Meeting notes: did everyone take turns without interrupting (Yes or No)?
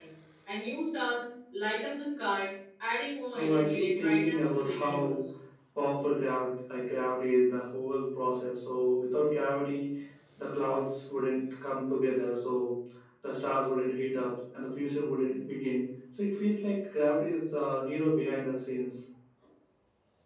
No